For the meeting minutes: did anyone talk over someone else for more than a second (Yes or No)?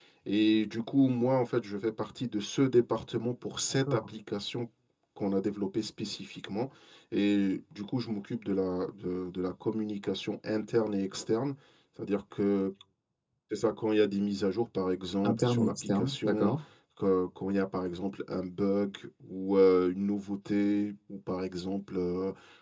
Yes